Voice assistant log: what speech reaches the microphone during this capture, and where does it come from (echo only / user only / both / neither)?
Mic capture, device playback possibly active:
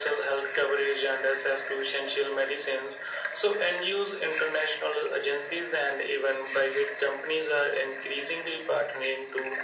echo only